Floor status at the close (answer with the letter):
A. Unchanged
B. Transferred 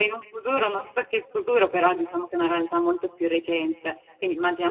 A